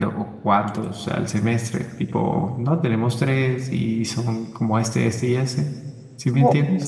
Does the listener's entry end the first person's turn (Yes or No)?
Yes